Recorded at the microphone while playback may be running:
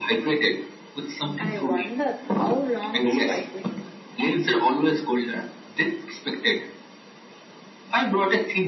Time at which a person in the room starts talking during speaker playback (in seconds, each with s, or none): 1.4 s